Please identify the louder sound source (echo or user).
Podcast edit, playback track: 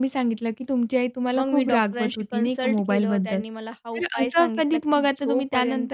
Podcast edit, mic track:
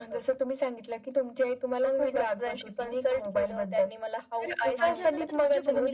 echo